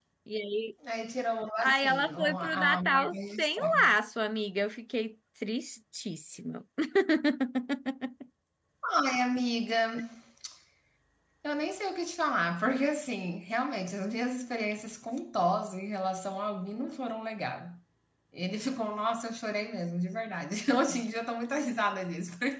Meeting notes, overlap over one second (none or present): present